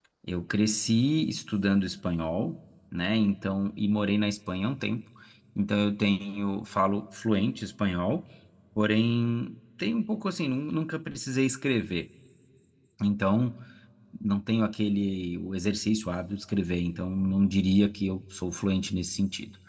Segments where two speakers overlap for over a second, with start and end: none

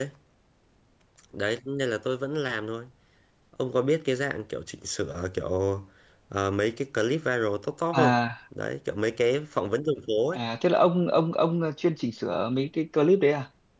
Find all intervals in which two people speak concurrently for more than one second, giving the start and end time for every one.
none

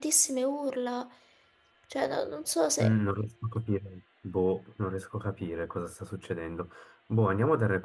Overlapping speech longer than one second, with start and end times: none

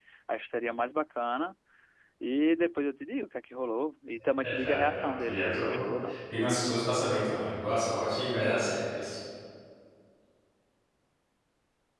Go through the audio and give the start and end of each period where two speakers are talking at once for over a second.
4.4-6.2

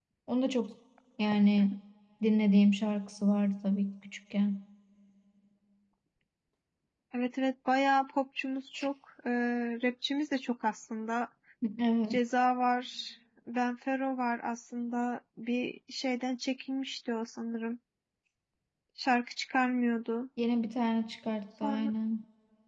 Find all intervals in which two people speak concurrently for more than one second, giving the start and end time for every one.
none

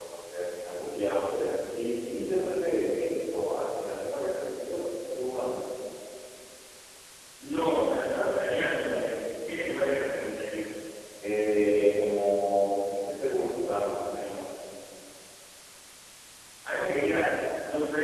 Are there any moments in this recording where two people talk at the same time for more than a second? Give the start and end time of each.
none

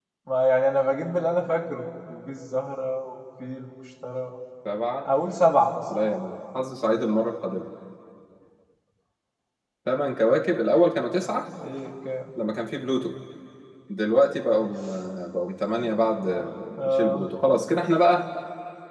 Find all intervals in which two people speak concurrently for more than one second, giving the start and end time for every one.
15.8-17.3

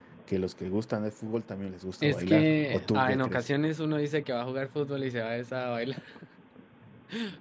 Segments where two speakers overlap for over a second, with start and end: 2.0-3.4

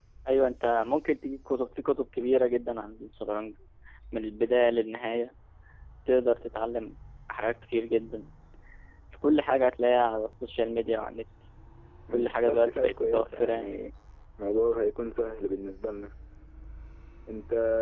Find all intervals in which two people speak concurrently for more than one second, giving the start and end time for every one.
12.1-13.7

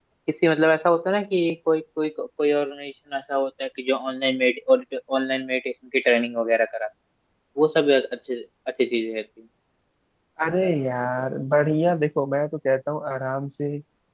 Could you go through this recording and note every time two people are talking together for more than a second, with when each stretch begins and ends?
none

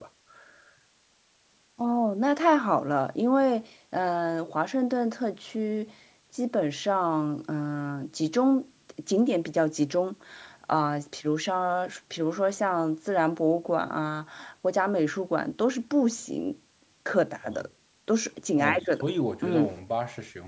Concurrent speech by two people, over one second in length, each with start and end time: none

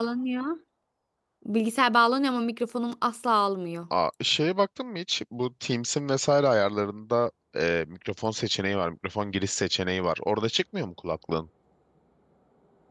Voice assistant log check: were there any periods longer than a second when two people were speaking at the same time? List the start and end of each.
none

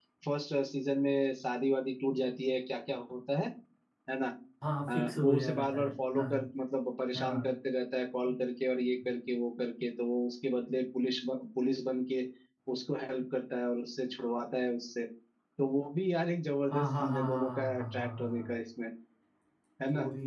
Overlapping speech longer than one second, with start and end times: 4.9-6.2, 16.7-18.6

